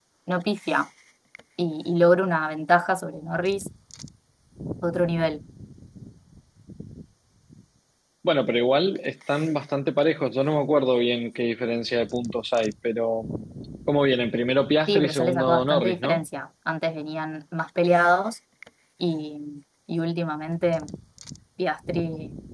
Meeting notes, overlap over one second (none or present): present